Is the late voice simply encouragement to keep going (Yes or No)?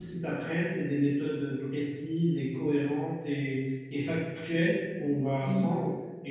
Yes